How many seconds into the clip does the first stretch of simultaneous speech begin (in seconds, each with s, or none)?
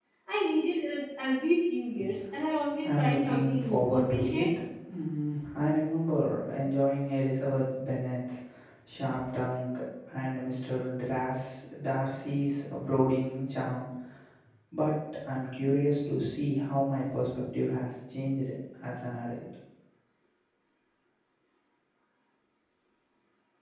2.8 s